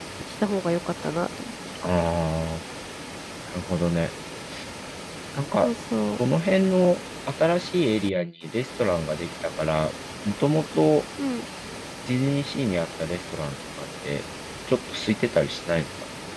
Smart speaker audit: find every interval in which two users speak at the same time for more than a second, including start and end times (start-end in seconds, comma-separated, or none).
none